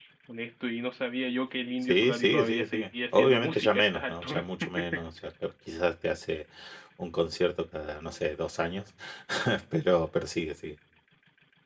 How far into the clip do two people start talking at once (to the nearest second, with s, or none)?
2 s